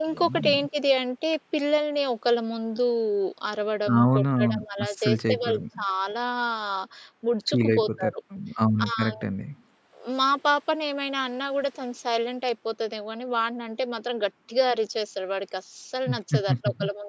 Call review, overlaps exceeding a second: present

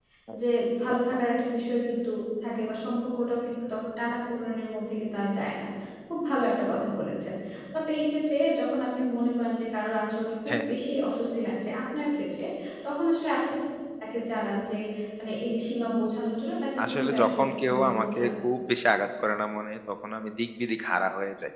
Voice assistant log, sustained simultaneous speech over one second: present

